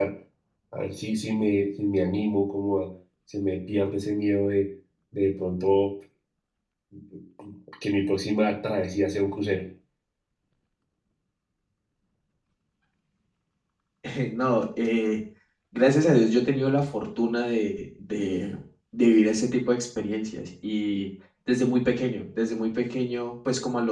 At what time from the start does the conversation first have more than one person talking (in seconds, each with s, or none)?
none